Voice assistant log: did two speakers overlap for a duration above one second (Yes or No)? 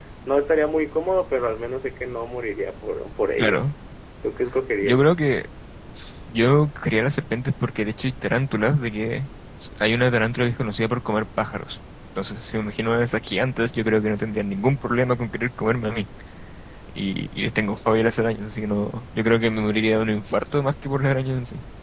No